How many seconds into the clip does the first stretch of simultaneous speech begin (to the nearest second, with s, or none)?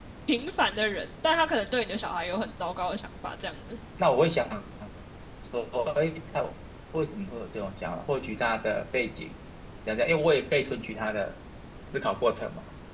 none